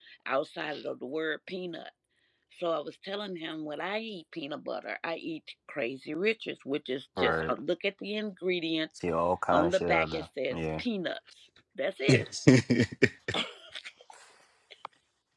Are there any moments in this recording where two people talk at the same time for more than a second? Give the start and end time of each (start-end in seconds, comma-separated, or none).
9.5-10.8